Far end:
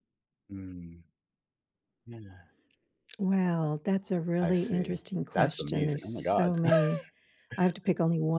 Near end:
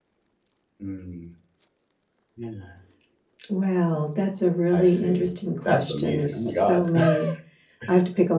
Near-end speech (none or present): none